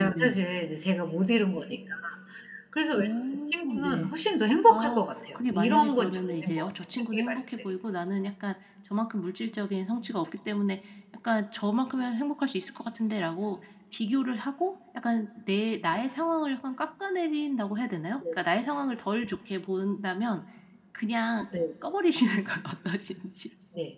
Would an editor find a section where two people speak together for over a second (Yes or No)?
Yes